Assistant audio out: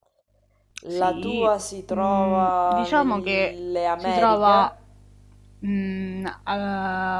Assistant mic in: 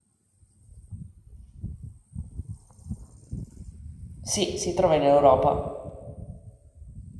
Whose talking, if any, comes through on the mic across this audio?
user only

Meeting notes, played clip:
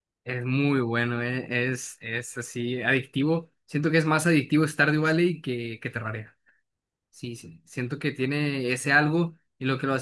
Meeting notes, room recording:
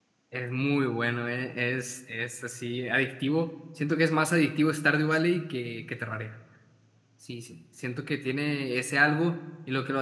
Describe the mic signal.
echo only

